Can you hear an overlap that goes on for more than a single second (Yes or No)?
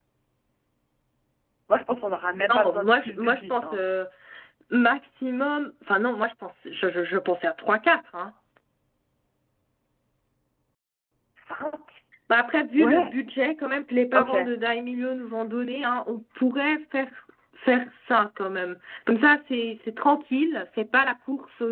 Yes